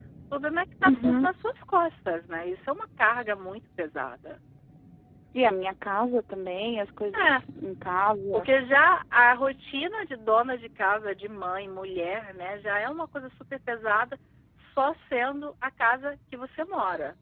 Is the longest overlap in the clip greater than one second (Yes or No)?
No